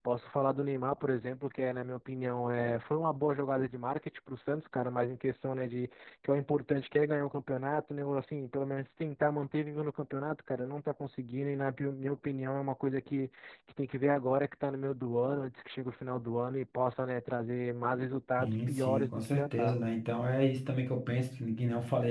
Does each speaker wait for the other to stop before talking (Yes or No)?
No